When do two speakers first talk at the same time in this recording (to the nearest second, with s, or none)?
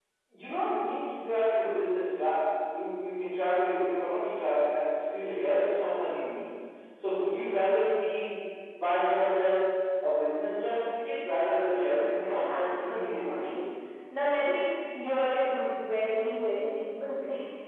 12 s